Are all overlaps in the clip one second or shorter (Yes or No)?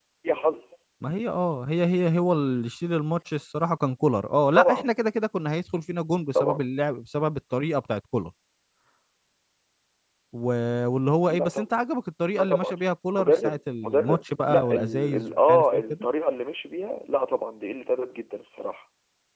No